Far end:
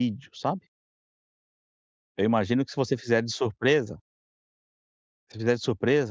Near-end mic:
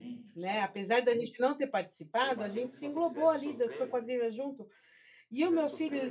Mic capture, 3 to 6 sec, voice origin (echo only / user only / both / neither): both